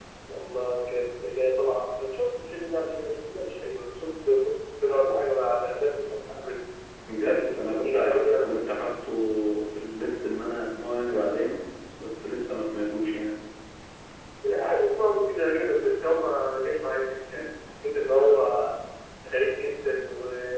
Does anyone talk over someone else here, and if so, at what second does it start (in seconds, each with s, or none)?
7.2 s